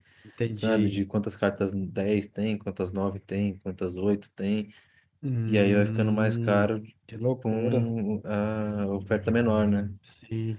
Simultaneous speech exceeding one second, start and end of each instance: 5.5-6.7

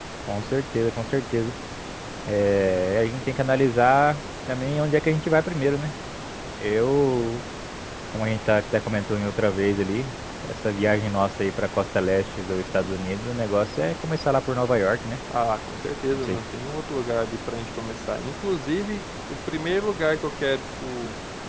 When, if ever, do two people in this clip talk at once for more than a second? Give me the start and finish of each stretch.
none

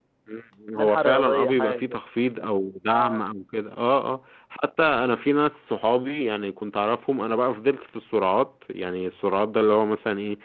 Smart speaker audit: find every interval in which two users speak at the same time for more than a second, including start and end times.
0.8-2.0

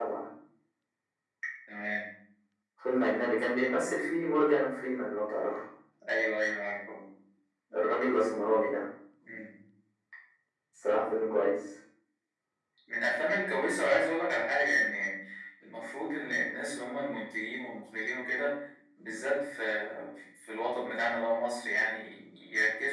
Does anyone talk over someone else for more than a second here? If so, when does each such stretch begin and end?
none

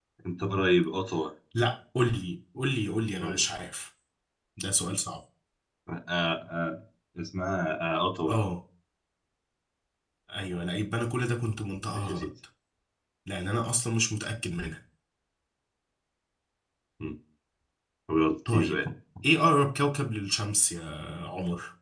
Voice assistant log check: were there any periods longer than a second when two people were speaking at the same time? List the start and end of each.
none

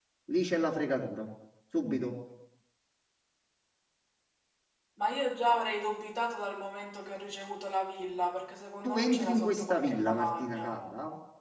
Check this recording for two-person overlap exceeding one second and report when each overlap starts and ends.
8.8-10.7

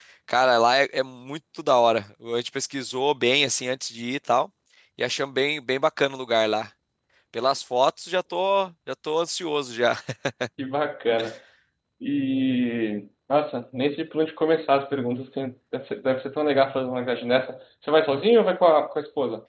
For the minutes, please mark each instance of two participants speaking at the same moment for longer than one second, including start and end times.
none

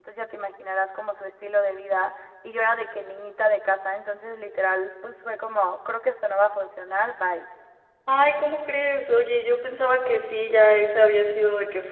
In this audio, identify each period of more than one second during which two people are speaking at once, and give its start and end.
none

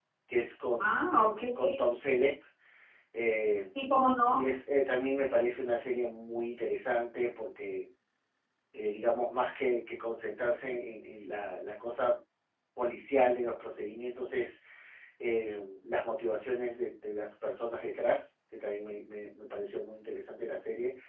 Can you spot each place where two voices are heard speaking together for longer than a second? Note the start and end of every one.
none

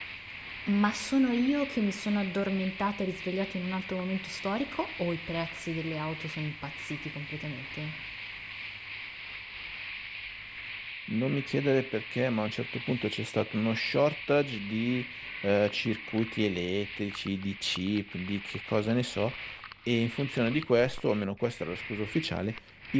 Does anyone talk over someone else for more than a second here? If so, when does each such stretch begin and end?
none

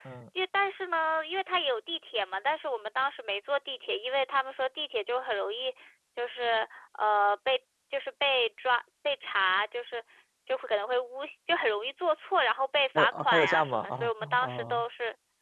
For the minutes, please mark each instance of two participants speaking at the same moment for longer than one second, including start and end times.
12.9-14.8

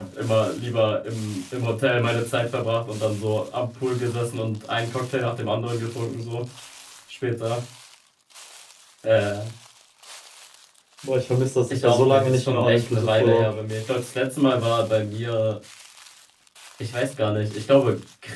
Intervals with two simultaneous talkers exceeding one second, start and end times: 11.7-13.5

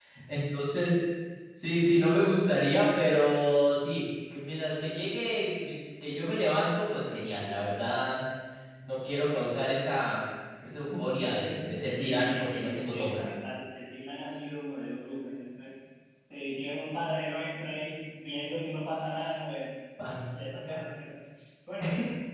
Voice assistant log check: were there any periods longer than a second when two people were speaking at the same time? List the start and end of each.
12.0-13.2

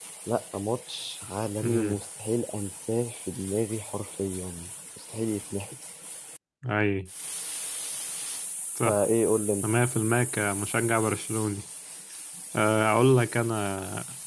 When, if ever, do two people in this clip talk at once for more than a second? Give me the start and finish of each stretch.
none

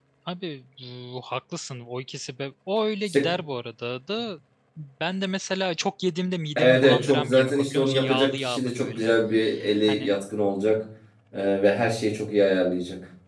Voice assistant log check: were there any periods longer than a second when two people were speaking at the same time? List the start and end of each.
6.6-9.2

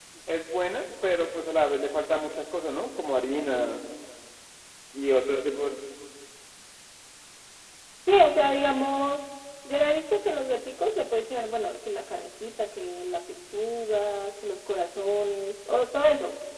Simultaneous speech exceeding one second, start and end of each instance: none

